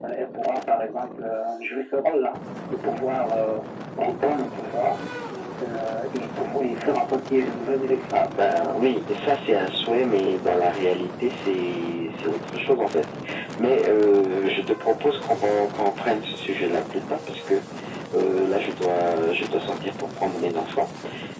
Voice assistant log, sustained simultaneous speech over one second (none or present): none